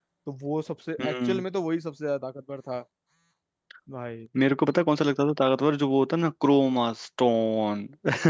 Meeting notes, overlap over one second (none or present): none